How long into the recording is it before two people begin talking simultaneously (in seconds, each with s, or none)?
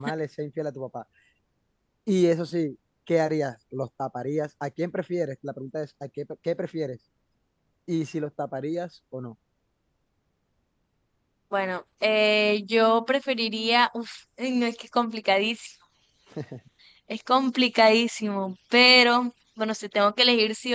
none